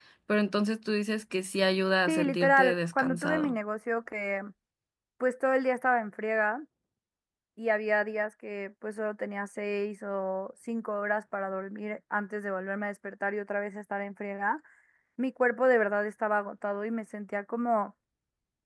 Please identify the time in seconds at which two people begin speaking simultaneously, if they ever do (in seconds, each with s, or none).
2.1 s